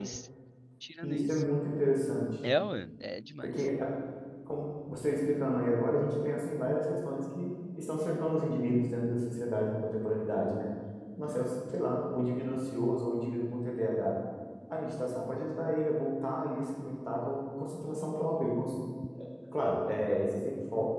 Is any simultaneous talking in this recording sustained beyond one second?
No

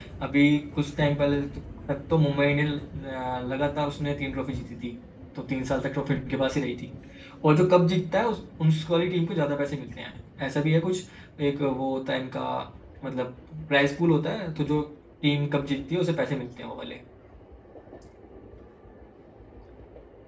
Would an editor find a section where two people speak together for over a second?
No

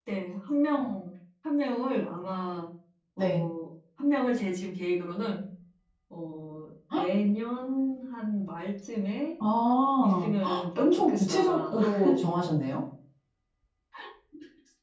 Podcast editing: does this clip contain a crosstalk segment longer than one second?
Yes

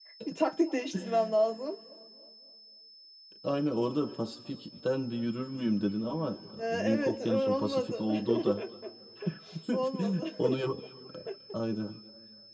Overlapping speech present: Yes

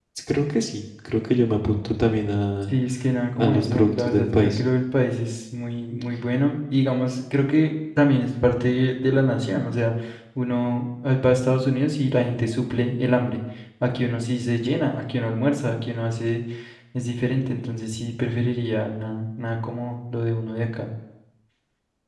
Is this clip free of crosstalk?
No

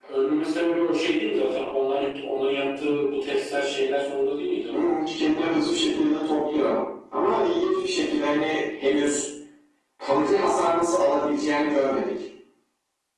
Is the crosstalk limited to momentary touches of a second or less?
Yes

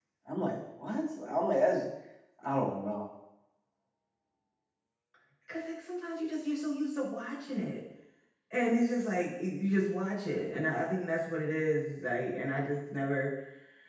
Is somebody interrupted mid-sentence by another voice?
No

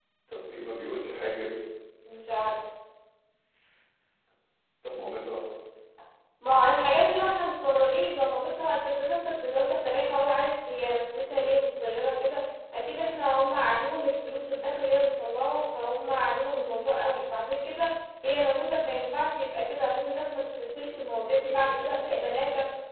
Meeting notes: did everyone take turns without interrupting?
Yes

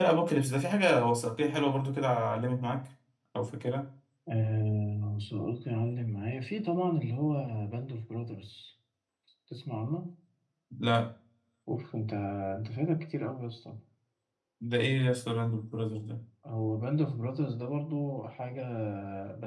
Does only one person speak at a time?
Yes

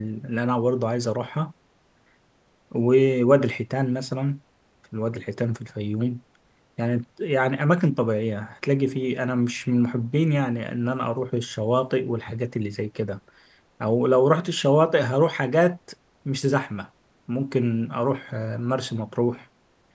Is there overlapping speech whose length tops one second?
No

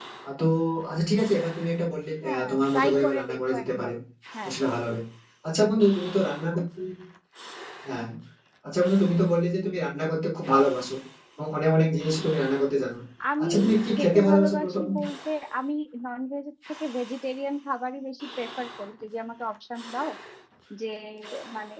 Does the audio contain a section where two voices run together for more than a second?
Yes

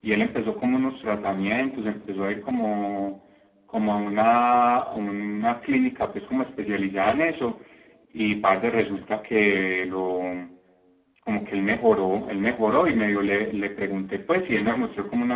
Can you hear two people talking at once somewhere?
No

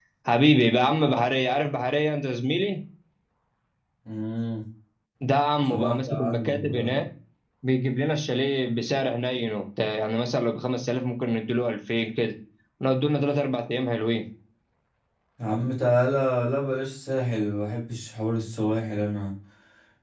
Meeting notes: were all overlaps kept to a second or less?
No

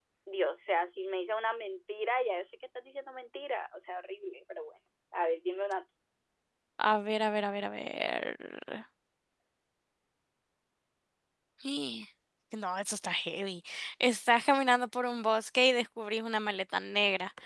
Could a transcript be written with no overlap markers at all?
Yes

